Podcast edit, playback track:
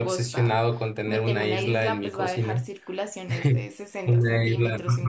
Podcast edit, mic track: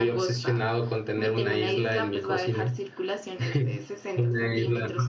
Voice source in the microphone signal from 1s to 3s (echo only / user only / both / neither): echo only